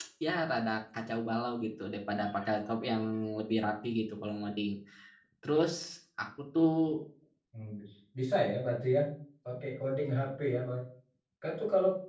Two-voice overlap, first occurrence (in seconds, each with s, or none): none